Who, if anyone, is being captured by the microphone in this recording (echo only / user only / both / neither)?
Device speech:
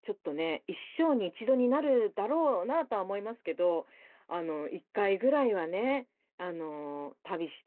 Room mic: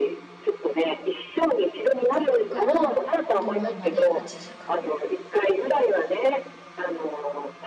both